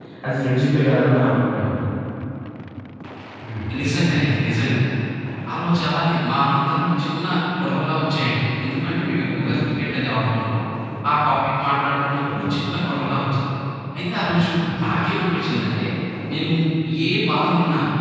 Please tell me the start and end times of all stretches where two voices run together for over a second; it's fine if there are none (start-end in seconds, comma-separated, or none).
none